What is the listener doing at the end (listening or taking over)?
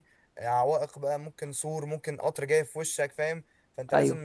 listening